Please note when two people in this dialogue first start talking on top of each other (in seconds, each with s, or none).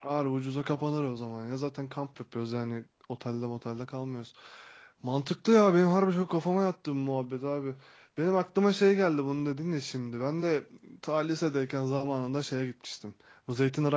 none